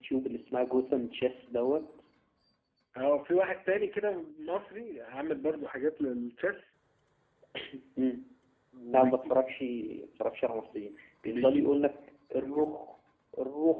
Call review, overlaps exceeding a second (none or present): none